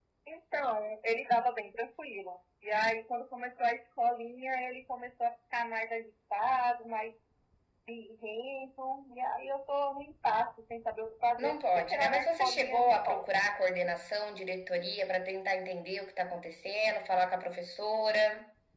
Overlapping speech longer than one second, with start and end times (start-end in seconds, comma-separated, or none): 11.4-13.2